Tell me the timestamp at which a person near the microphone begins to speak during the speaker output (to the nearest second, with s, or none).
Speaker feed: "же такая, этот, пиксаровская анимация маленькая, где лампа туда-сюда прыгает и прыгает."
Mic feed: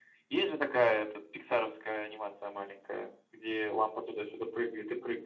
none